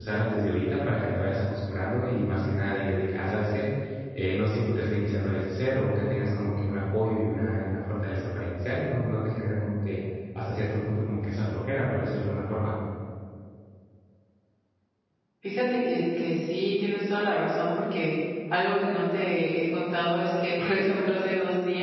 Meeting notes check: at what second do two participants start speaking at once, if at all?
none

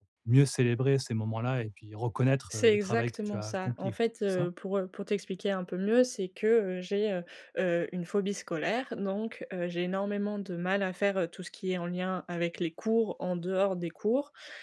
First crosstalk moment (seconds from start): 2.5 s

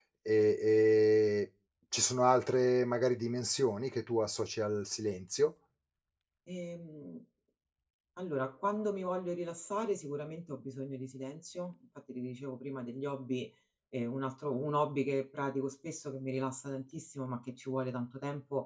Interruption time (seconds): none

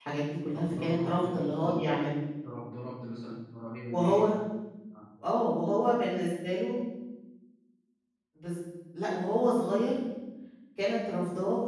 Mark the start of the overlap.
0.5 s

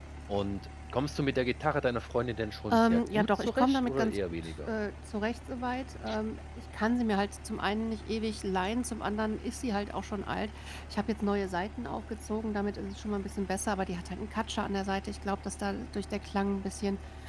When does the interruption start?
2.7 s

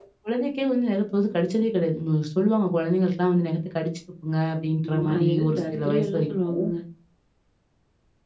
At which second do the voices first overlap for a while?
4.8 s

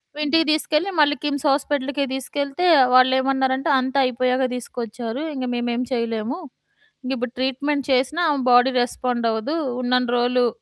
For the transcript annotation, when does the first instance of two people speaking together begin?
none

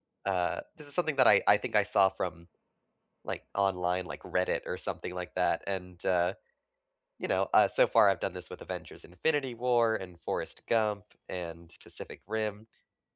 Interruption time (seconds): none

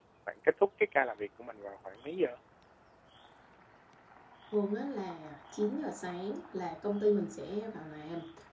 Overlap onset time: none

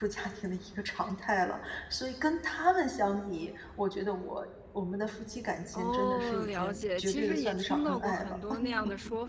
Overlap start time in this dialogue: 5.7 s

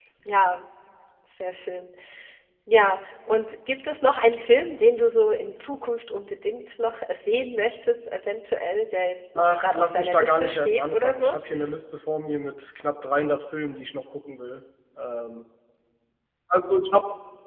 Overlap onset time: 9.4 s

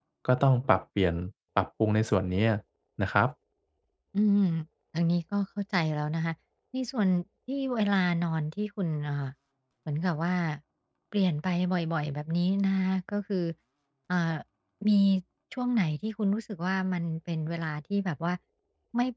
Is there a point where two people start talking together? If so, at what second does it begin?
none

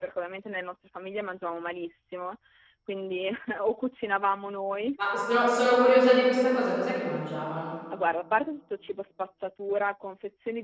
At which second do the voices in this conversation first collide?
none

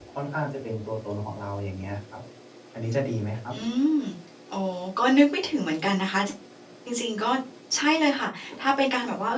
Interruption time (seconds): none

